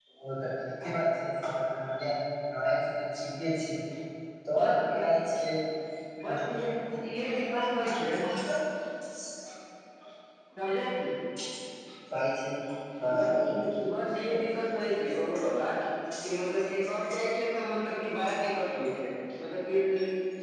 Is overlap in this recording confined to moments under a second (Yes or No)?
Yes